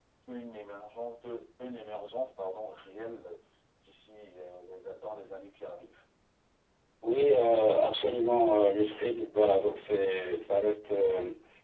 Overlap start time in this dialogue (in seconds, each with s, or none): none